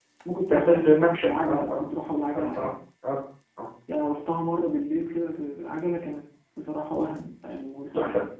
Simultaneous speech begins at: 0.5 s

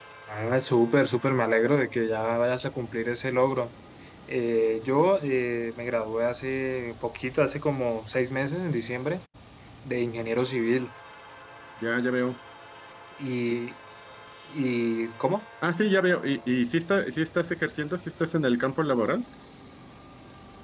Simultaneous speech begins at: none

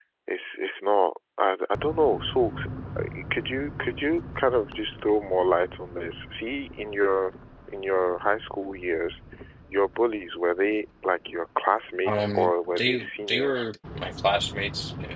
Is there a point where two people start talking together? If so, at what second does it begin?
12.0 s

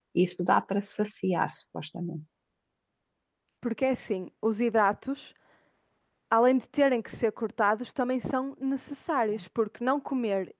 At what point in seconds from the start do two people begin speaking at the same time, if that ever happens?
none

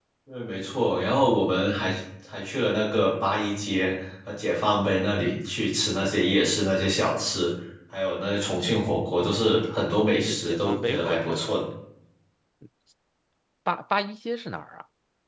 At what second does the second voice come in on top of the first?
10.3 s

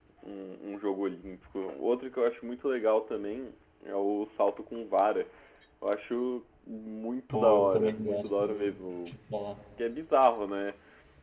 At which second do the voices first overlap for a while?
7.3 s

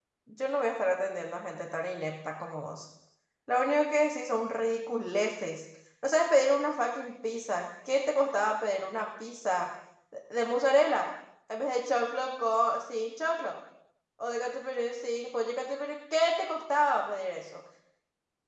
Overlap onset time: none

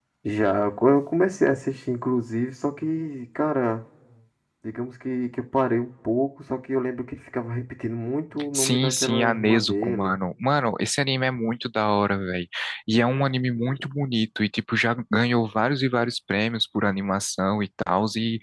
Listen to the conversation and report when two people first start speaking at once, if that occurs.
8.5 s

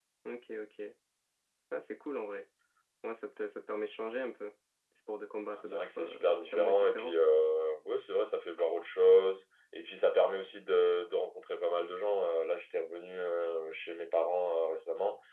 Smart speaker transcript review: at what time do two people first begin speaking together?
5.5 s

